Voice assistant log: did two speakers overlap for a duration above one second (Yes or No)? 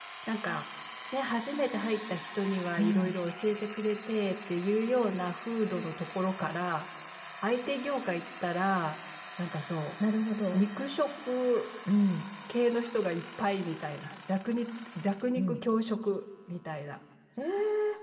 No